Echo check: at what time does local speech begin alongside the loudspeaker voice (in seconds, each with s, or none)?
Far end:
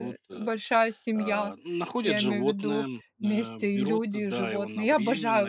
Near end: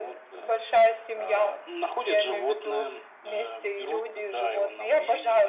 none